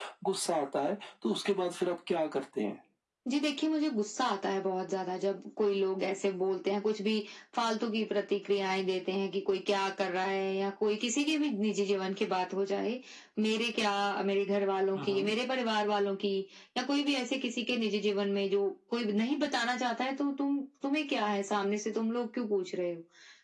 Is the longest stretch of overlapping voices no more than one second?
Yes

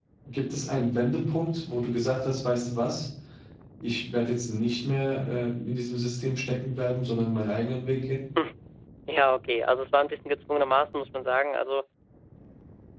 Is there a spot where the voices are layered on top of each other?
No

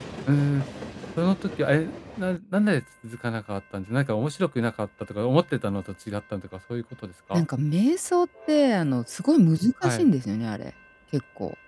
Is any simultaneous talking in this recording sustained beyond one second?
No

